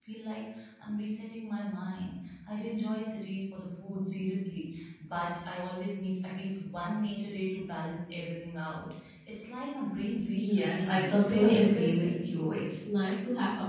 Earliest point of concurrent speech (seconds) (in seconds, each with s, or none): 10.4 s